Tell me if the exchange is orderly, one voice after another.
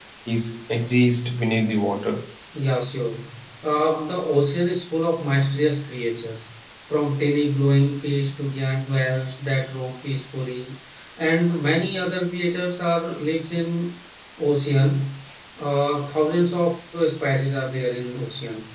Yes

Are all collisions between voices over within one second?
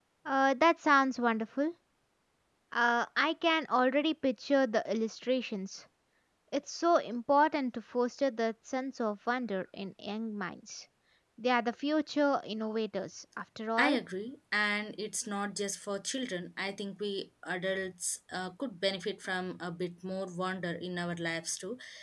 Yes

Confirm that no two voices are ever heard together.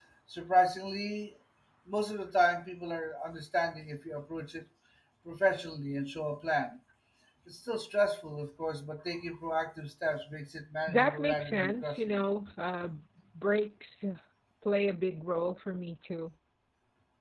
No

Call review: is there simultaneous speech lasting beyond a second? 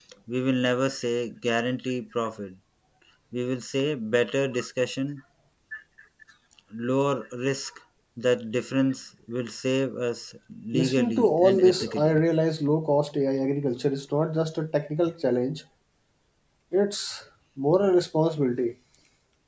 Yes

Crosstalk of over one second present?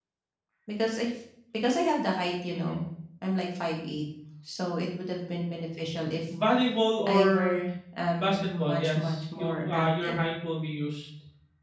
Yes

